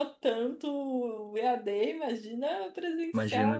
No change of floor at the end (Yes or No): No